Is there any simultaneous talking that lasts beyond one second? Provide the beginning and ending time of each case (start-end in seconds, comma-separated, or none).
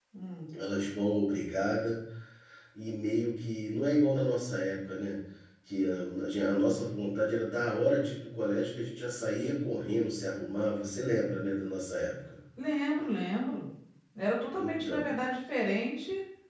none